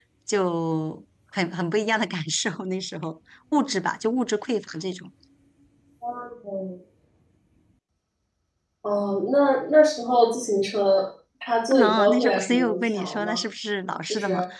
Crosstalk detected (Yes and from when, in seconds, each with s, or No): Yes, from 11.7 s